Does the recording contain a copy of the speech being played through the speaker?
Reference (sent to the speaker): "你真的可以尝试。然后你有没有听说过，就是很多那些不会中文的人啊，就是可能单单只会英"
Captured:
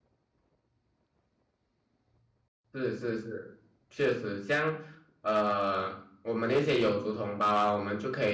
No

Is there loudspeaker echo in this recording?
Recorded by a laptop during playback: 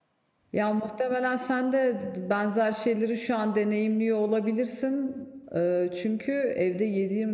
No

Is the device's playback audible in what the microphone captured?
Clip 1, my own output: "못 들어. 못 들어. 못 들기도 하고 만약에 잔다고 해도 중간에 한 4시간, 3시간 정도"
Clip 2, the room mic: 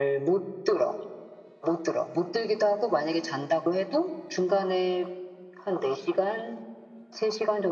Yes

